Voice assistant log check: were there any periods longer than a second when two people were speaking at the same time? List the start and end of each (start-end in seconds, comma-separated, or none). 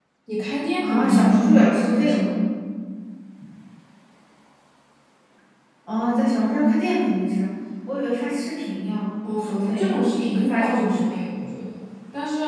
0.8-2.3, 9.4-11.3